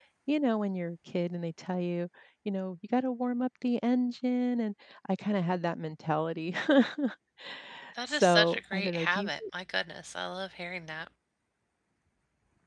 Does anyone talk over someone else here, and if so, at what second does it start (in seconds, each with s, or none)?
8.1 s